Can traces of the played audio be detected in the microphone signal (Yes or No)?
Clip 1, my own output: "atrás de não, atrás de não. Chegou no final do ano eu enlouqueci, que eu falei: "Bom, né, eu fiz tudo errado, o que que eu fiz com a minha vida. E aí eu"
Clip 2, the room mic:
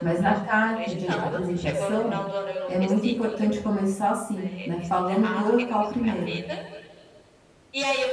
Yes